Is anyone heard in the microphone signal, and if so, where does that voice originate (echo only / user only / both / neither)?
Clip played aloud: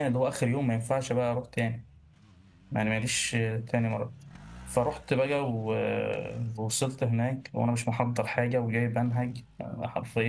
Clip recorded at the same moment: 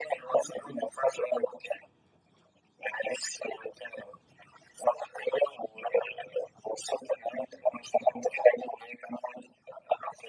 echo only